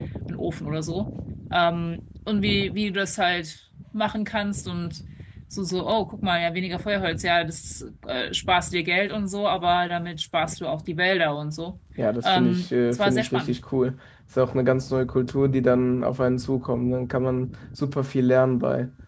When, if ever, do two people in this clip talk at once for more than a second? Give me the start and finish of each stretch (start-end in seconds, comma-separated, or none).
12.2-13.6